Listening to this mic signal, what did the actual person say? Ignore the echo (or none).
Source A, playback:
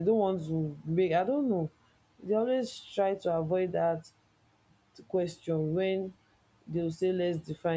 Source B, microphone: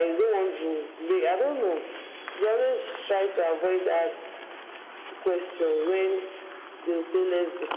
none